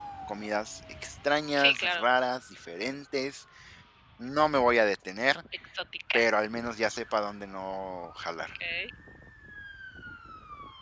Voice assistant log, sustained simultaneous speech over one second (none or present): none